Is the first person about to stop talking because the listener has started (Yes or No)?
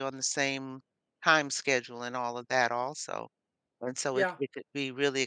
No